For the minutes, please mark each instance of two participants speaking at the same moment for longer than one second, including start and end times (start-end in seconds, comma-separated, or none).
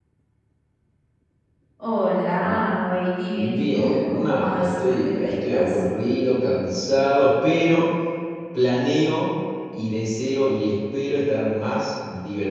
3.3-5.8